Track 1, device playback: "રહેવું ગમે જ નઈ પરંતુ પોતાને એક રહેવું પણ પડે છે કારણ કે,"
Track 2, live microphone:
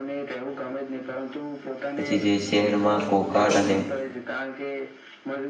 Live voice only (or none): પછી જે શહેરમાં કોકાડ અને.